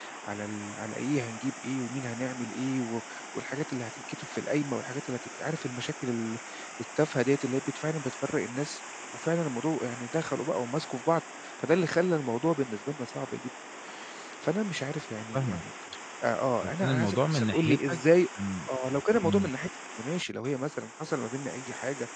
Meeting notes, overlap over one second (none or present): present